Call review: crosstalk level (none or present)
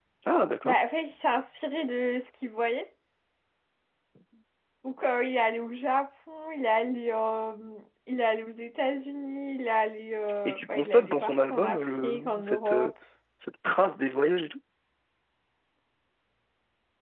present